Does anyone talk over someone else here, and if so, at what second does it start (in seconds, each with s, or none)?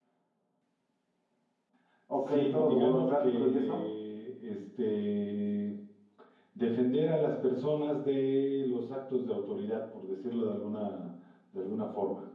2.1 s